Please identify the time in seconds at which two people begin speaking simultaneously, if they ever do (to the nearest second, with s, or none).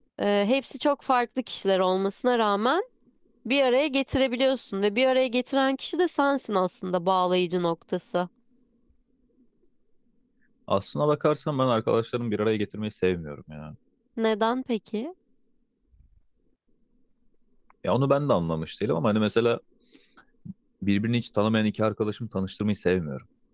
none